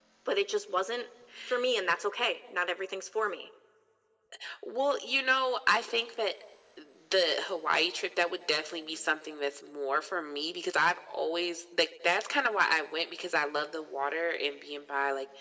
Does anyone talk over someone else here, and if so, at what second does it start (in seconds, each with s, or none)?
none